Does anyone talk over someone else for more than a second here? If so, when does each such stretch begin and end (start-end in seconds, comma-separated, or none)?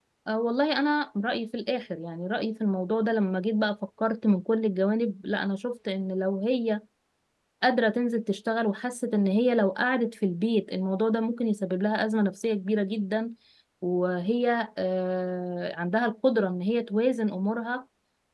none